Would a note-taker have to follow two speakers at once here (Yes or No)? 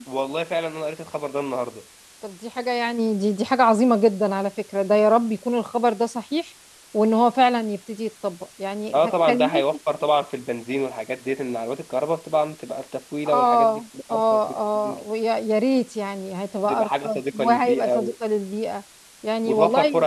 Yes